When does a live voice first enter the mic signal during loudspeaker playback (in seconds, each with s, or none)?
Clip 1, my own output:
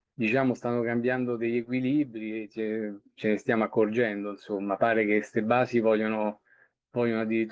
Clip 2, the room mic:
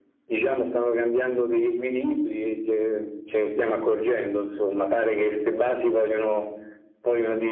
none